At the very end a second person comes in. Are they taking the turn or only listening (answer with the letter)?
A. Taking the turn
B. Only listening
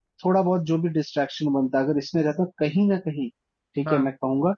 B